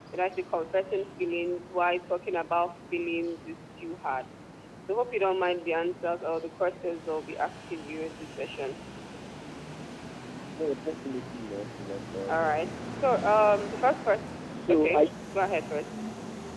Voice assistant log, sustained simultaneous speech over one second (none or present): none